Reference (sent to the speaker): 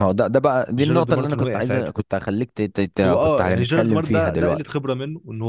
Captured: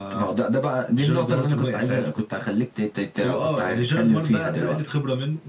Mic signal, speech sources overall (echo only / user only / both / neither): echo only